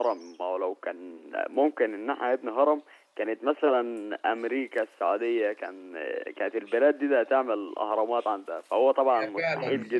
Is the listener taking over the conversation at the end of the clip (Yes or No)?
Yes